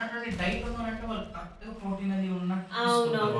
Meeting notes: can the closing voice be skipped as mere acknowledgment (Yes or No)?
No